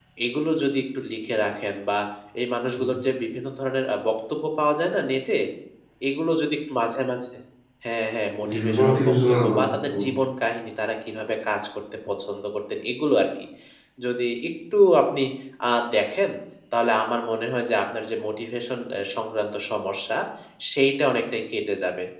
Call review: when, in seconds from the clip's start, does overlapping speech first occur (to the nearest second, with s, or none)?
9 s